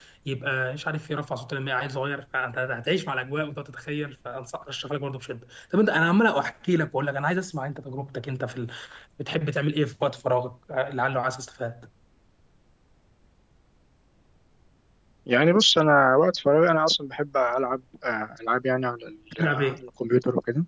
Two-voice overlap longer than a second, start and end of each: none

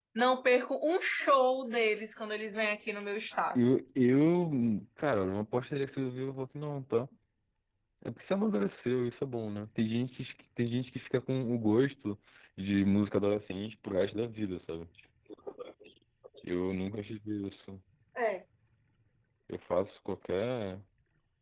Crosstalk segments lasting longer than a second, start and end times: none

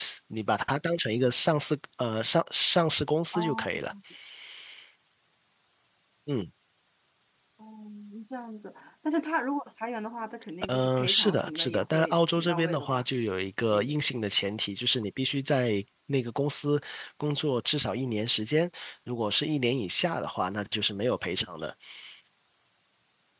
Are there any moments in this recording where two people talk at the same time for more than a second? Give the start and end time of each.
10.7-13.0

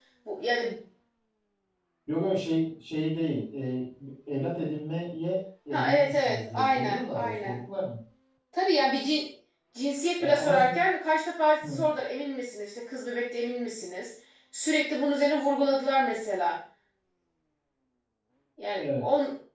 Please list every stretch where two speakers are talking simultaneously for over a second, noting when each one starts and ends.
5.7-7.6

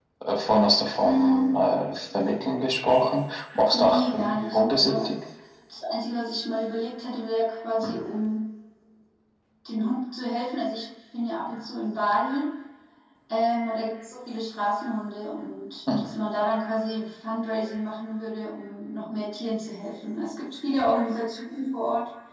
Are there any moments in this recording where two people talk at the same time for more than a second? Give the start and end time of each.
3.7-5.1

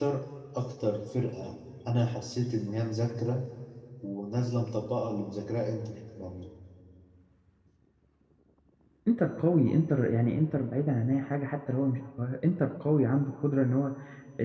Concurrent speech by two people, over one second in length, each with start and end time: none

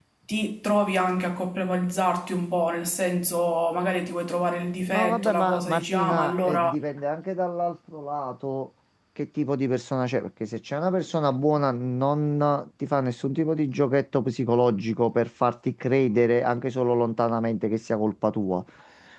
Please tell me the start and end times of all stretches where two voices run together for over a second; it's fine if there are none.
4.9-6.8

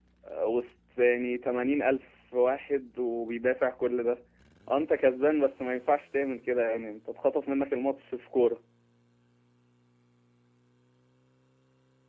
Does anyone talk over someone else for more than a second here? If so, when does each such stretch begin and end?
none

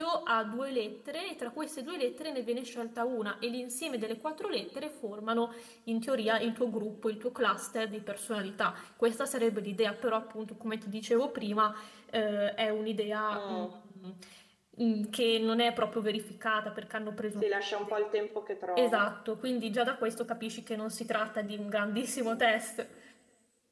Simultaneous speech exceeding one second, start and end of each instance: none

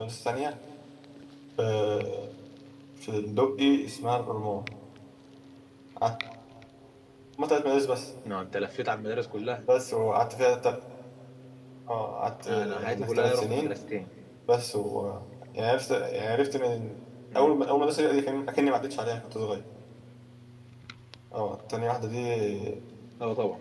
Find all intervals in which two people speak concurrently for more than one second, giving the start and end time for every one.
12.5-13.8

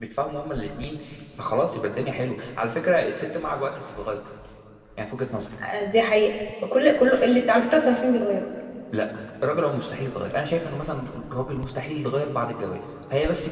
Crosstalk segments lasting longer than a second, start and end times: none

